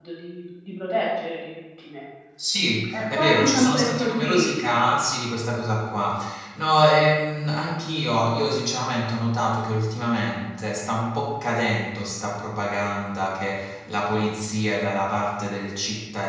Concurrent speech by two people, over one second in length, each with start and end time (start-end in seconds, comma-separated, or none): 2.9-4.5